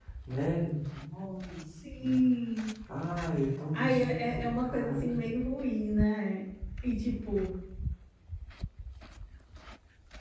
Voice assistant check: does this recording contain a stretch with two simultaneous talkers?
Yes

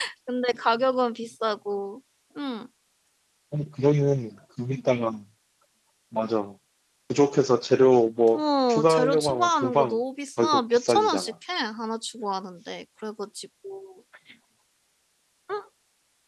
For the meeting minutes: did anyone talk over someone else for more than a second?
Yes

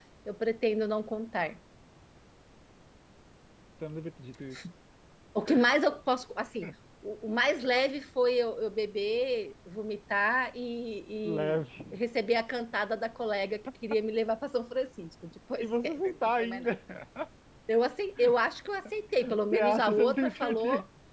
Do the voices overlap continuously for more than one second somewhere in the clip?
Yes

